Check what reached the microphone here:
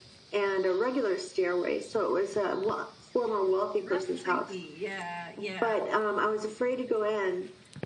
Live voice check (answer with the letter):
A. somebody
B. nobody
A